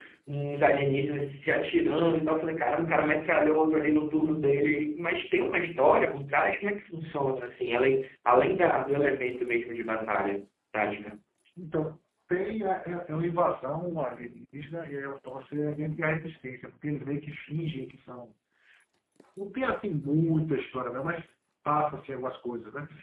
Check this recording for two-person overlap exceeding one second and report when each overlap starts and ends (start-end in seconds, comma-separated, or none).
none